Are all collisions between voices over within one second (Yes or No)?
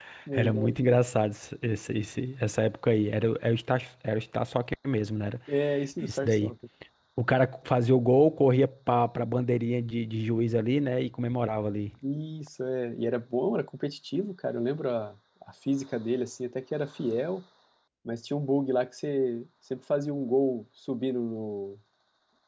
Yes